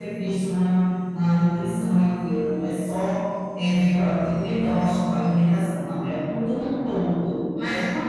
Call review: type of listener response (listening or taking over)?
taking over